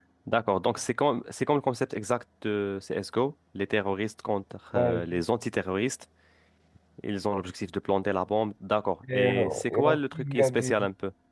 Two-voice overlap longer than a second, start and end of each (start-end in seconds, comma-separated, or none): 9.1-10.7